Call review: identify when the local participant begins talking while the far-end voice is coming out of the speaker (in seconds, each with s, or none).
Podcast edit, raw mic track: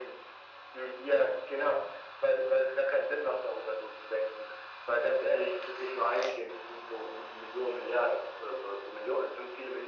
none